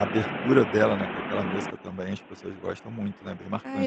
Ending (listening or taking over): taking over